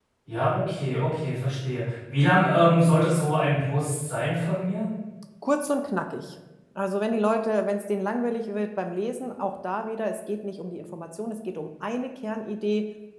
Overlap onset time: none

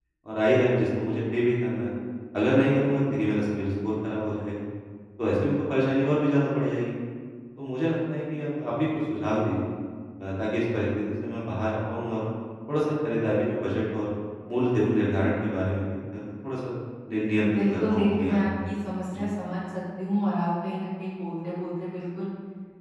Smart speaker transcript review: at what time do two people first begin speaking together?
17 s

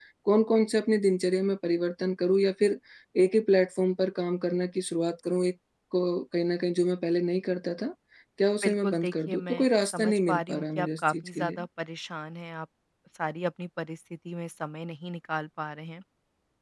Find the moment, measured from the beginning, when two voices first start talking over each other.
9 s

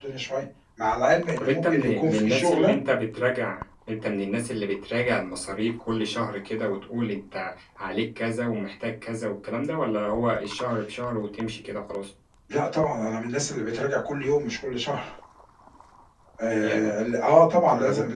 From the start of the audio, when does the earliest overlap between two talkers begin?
1 s

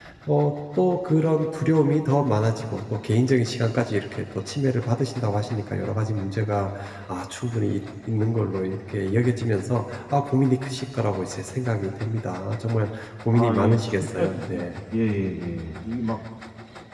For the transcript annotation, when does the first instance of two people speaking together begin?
13 s

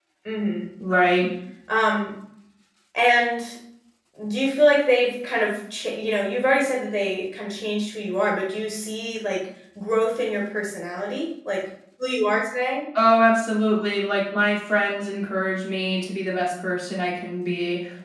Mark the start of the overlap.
none

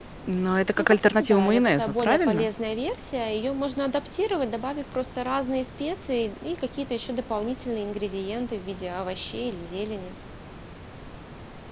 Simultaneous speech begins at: 1 s

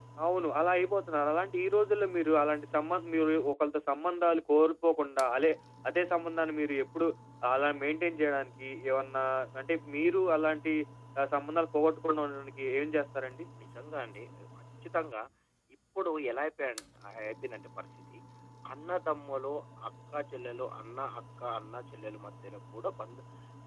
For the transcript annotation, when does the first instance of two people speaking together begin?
none

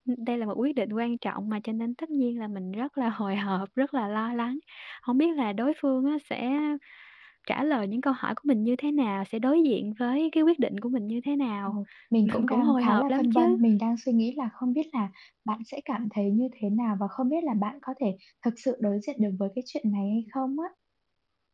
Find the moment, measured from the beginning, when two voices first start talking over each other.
12 s

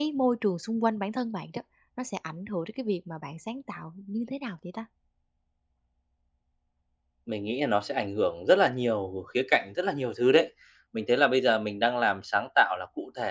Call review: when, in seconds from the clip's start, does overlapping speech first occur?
none

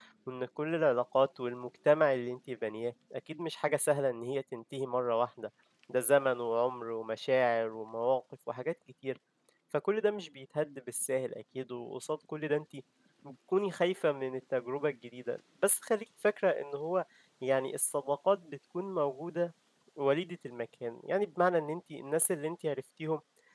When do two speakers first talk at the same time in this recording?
none

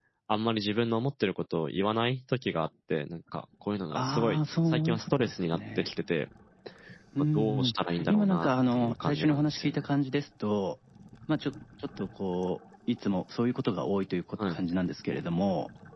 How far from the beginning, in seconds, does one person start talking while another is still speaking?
4 s

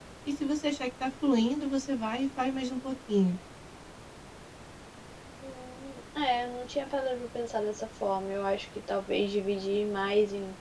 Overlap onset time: none

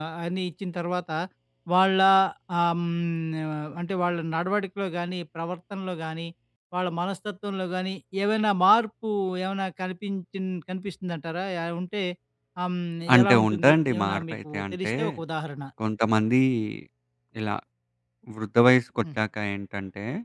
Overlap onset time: 13 s

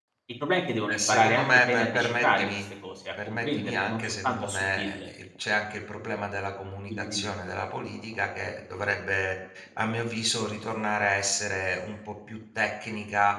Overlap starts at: 1 s

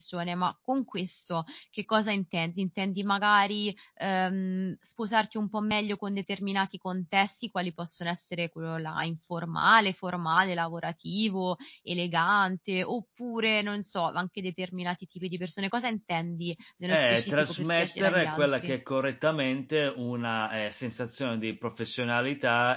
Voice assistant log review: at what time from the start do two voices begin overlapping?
17 s

